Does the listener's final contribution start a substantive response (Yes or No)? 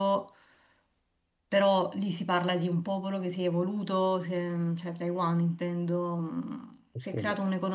No